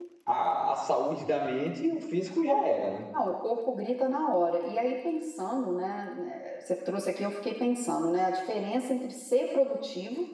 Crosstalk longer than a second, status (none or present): none